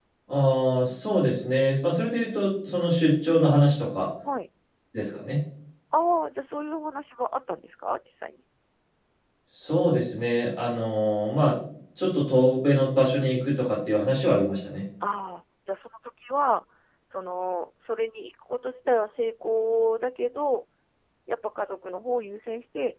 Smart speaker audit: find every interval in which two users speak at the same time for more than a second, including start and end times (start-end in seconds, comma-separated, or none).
none